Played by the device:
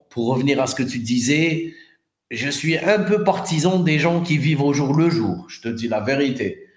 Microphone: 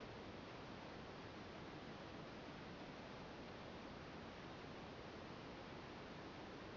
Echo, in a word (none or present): none